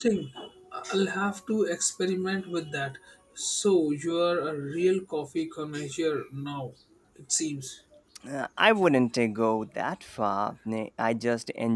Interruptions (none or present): none